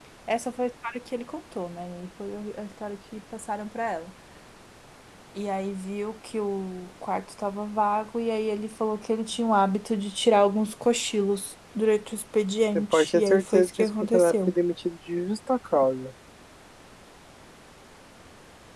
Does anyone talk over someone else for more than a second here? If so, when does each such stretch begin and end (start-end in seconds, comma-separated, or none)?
12.8-14.5